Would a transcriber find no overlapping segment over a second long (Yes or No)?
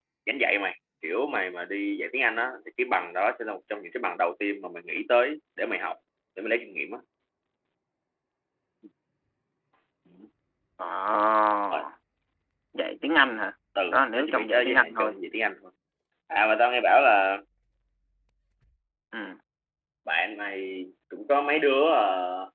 No